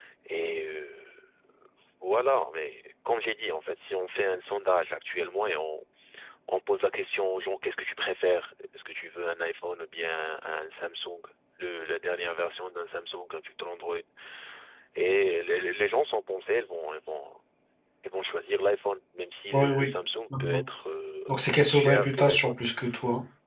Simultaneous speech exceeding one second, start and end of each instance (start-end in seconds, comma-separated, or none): 21.3-22.5